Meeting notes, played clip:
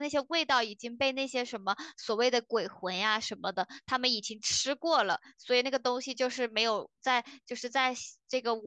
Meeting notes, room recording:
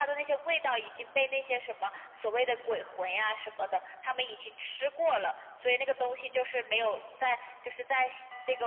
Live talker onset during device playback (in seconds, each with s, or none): none